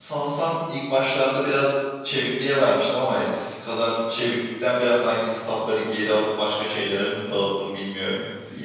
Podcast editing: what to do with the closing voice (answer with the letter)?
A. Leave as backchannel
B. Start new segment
B